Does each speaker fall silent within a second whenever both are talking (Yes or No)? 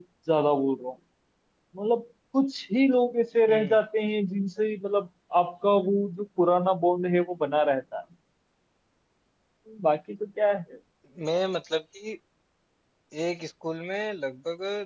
Yes